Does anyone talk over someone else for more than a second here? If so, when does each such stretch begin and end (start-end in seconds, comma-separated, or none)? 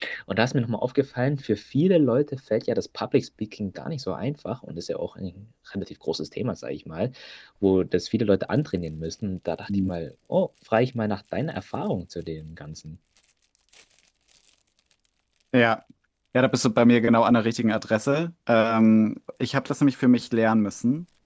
none